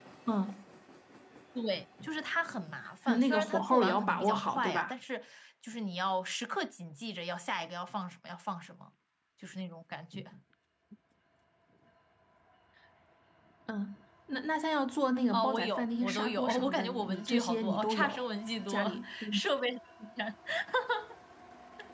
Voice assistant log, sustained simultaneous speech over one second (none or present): present